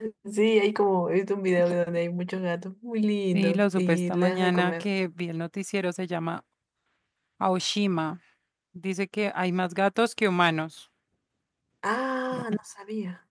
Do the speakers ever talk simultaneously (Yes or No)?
Yes